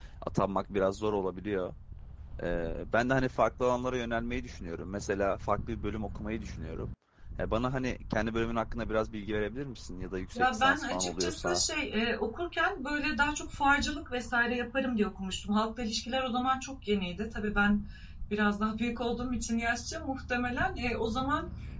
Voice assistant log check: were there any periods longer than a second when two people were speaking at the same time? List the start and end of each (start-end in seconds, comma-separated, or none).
10.3-11.6